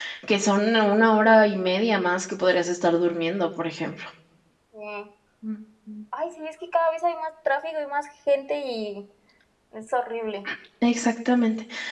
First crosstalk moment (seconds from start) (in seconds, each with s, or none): none